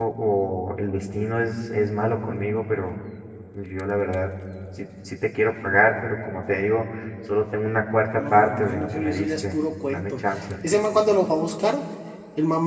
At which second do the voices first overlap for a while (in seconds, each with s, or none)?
8.2 s